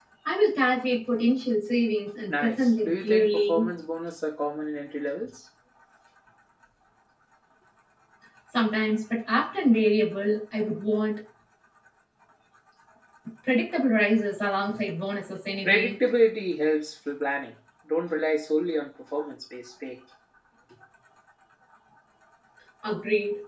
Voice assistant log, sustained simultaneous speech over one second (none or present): present